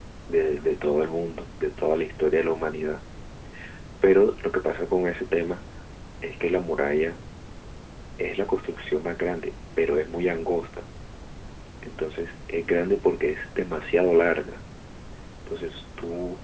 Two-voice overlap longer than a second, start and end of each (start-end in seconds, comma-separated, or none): none